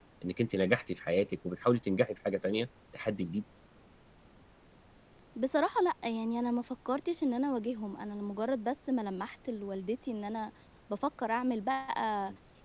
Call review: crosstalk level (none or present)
none